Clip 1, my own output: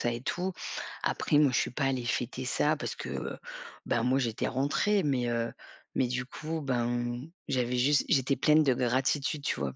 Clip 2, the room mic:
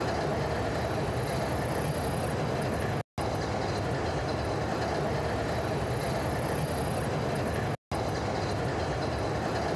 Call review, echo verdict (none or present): none